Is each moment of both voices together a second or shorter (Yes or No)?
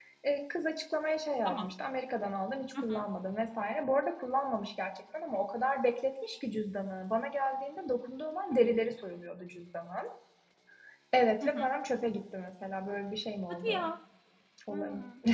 Yes